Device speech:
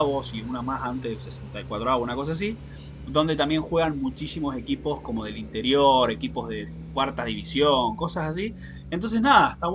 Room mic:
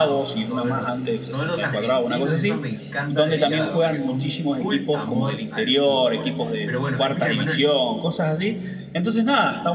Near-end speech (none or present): present